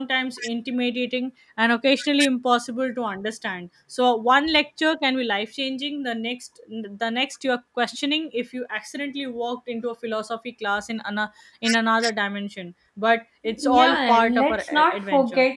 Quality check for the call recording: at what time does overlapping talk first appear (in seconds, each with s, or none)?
13.6 s